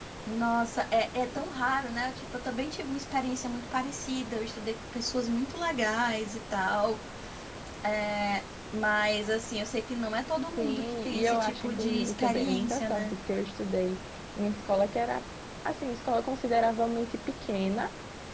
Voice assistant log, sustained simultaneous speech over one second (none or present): present